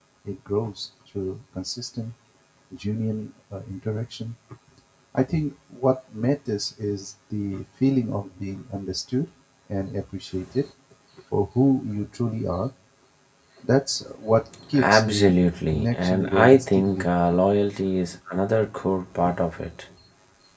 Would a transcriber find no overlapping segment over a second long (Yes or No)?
No